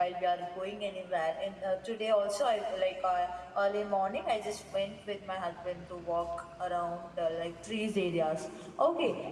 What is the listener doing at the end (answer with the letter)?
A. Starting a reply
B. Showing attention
B